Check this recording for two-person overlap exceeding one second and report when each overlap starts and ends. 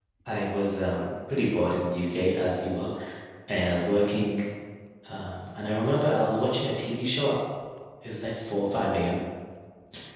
none

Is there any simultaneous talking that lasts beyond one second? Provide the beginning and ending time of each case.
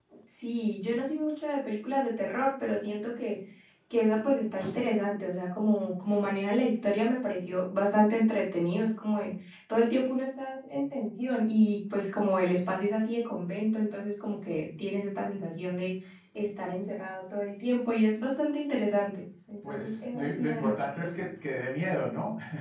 19.7-21.1

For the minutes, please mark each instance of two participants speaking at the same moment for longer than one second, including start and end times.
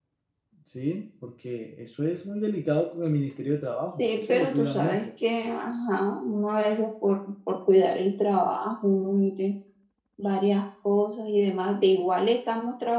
3.9-5.1

